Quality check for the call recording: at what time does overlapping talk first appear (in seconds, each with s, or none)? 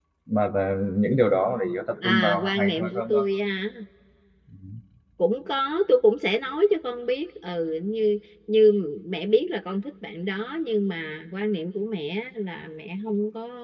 2.0 s